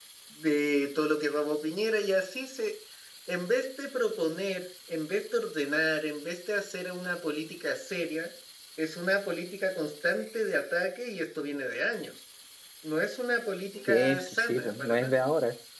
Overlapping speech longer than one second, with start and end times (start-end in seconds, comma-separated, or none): 13.9-15.2